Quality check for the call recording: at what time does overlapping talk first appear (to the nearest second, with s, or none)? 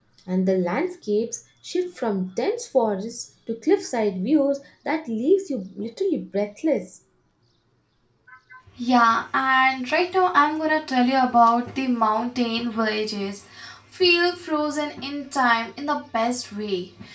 none